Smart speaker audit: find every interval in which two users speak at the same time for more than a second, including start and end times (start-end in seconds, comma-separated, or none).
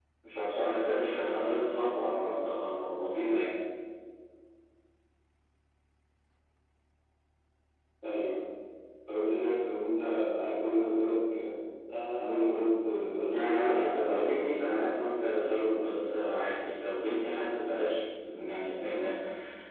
13.3-14.7